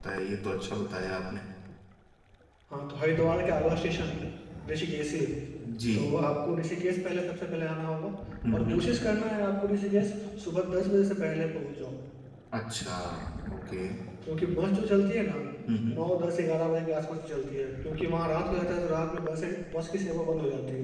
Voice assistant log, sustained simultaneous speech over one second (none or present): none